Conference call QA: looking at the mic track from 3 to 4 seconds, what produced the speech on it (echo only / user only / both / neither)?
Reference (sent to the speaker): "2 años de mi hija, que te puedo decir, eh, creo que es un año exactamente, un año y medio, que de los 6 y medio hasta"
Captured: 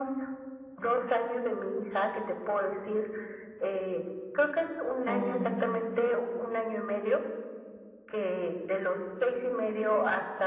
echo only